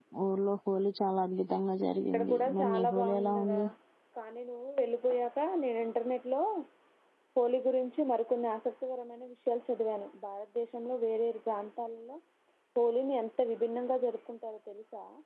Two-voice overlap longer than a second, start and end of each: 2.1-3.6

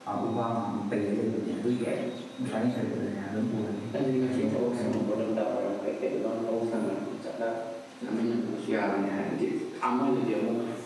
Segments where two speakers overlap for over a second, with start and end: 4.0-5.3

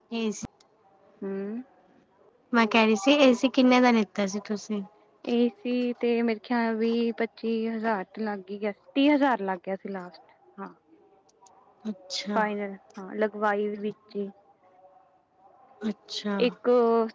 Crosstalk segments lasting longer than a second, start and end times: none

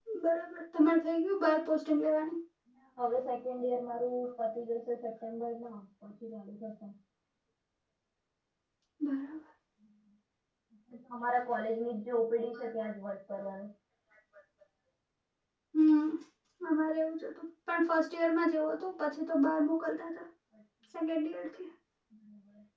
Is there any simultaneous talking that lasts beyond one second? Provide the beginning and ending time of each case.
none

